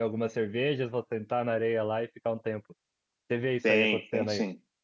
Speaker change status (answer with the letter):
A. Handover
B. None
A